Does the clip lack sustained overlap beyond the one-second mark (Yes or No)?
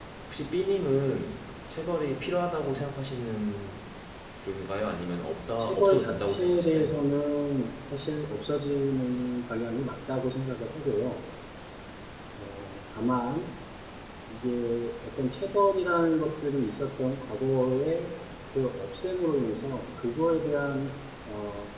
No